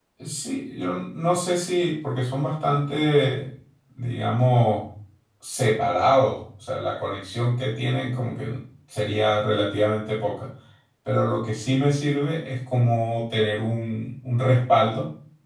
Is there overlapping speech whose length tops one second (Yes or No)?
No